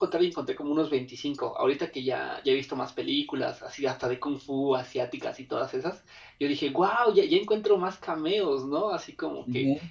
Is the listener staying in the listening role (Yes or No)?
Yes